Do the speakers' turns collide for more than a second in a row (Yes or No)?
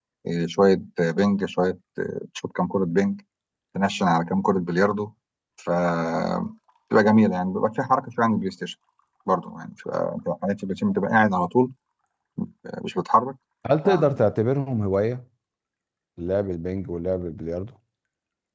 No